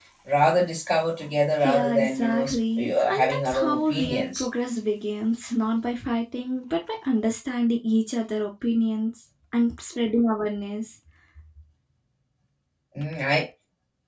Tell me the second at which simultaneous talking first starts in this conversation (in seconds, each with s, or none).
1.6 s